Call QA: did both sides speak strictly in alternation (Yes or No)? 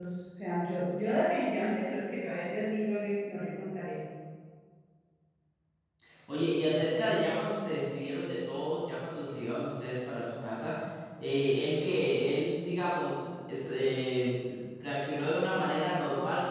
Yes